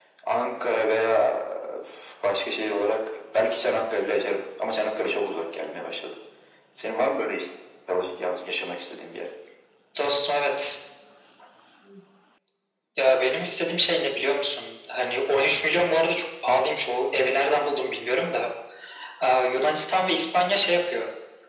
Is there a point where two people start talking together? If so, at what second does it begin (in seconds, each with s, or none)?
none